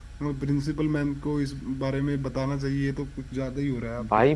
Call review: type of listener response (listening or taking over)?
taking over